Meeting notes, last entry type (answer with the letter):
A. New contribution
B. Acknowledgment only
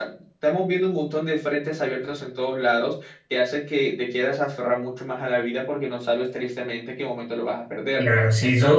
A